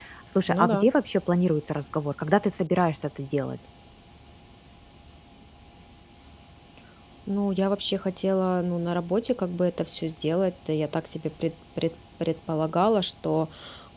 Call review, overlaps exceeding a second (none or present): none